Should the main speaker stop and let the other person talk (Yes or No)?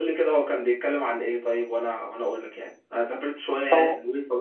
No